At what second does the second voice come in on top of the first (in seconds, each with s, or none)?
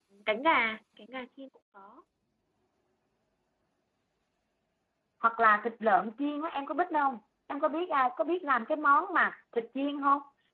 none